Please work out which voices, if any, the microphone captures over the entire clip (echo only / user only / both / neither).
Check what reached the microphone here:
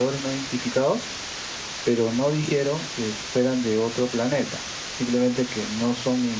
user only